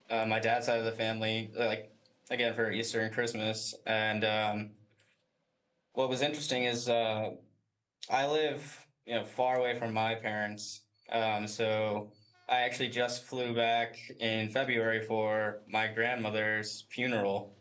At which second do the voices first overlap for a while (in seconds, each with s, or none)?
none